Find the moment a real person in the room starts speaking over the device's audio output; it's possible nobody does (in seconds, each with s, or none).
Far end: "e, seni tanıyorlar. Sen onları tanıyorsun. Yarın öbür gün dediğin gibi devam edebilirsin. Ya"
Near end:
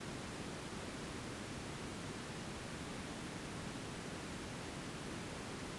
none